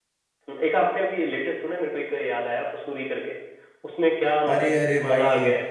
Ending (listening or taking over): taking over